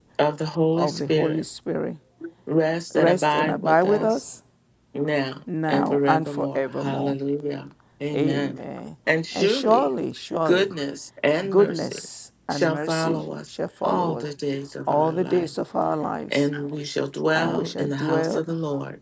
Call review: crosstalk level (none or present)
present